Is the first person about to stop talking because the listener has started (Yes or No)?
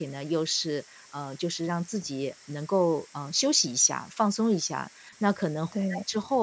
No